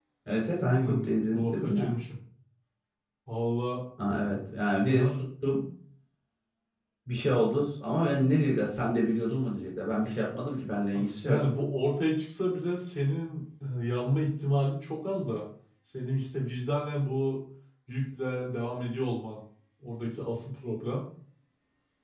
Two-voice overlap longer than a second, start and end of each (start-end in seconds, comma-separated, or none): 0.7-1.9